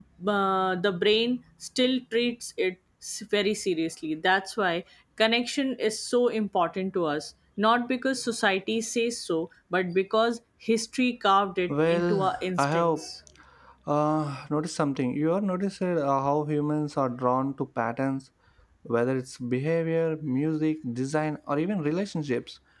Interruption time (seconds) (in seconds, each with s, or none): 11.7 s